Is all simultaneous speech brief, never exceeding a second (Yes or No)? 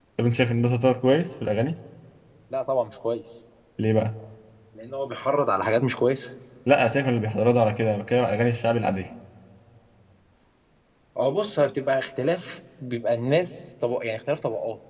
Yes